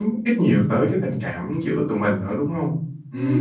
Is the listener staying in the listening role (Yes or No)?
No